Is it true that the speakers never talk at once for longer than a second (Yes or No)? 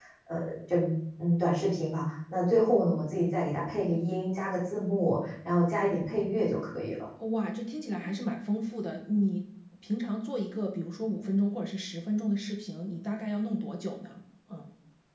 Yes